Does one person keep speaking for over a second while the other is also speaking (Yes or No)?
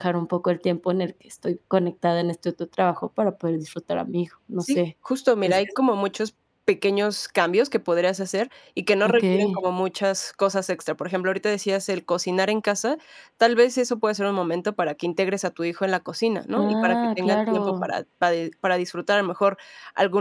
Yes